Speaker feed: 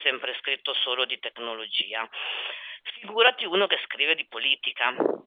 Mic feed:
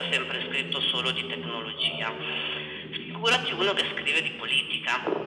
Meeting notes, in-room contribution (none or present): present